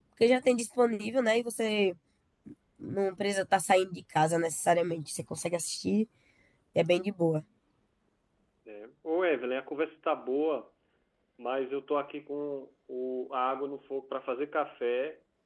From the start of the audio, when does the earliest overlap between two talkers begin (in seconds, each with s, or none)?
none